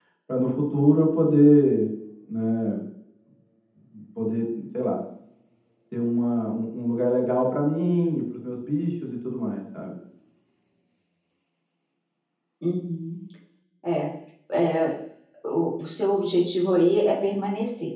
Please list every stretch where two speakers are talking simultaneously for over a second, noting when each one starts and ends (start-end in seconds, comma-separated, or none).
none